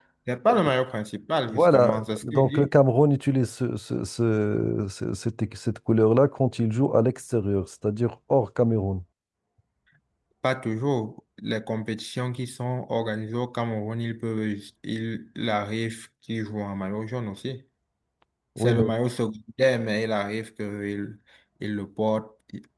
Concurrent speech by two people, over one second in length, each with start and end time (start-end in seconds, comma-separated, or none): 1.5-2.7